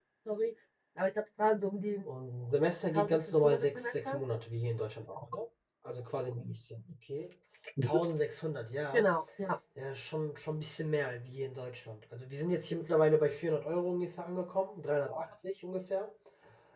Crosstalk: present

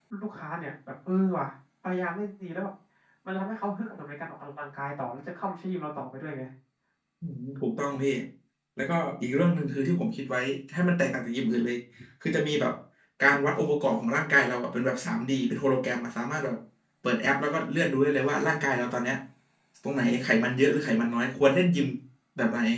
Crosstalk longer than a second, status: none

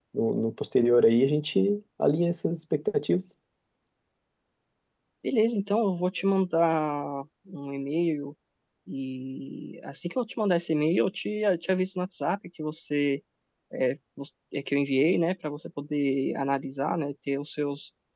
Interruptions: none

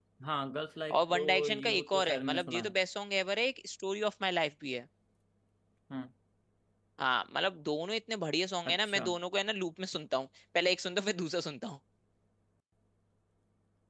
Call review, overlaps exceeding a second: present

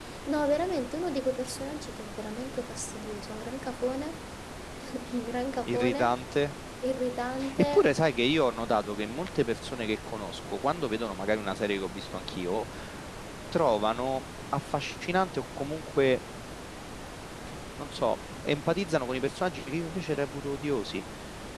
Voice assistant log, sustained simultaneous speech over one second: none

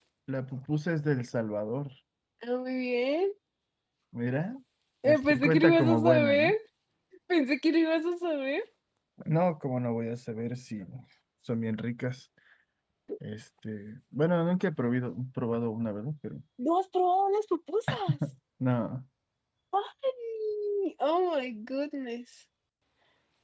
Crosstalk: present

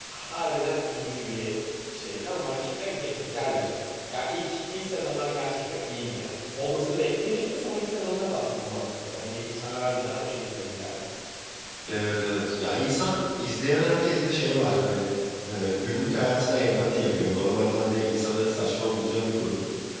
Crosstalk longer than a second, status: none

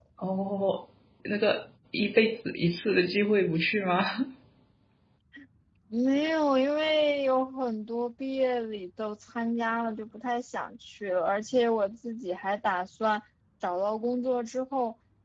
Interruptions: none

